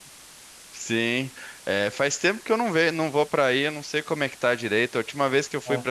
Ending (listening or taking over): listening